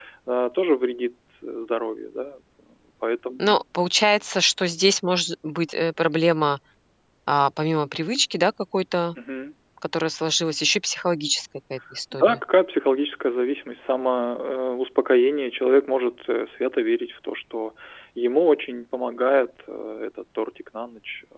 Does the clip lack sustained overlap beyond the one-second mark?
Yes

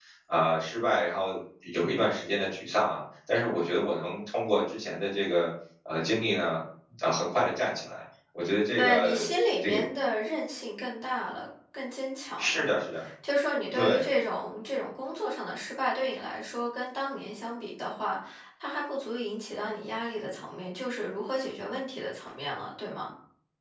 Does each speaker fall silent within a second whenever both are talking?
Yes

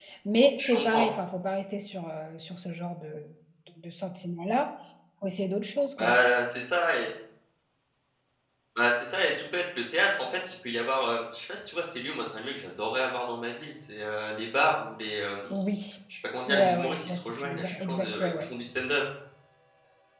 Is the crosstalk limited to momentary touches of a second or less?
No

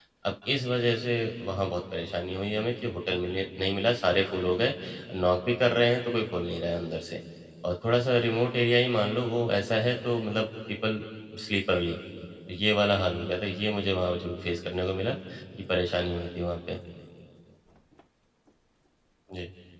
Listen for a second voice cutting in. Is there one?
No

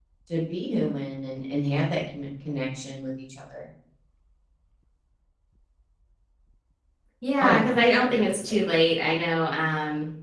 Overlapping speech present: Yes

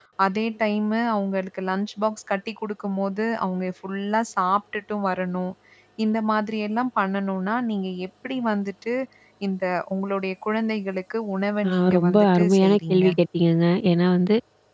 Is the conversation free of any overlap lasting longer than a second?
No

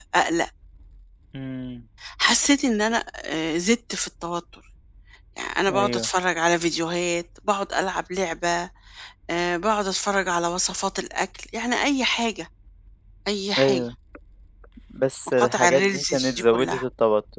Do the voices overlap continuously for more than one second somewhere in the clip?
Yes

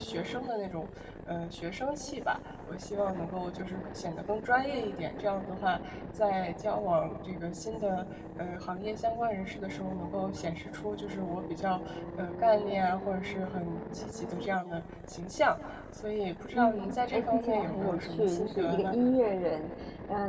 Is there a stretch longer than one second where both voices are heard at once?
Yes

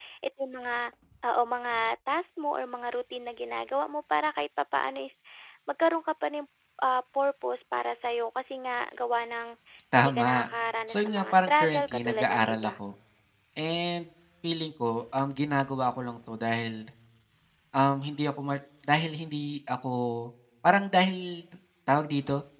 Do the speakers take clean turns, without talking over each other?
No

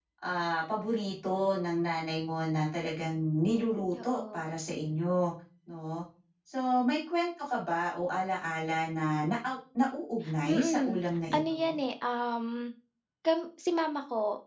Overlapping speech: Yes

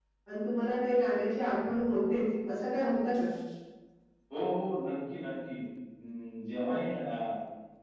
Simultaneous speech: No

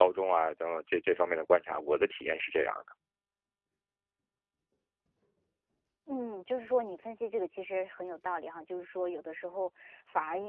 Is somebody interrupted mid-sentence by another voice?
No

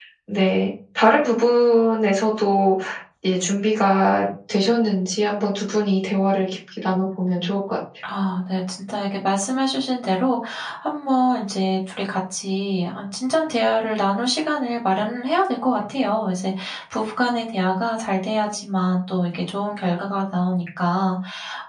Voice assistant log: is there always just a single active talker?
Yes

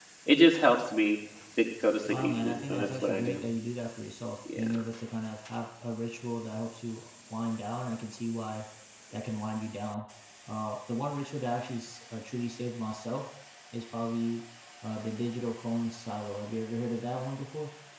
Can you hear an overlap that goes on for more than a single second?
Yes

